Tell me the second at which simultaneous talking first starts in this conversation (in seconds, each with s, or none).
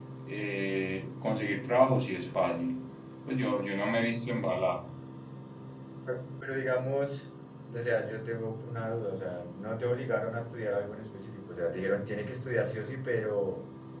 none